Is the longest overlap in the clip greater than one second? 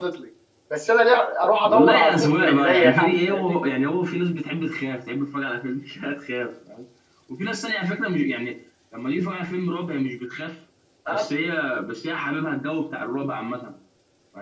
Yes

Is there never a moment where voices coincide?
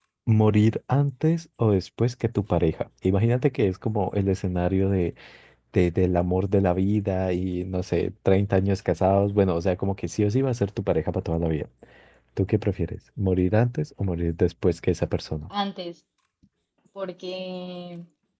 Yes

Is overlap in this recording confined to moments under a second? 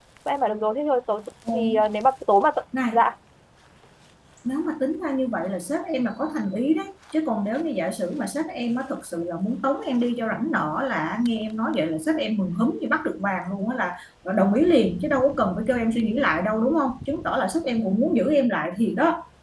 Yes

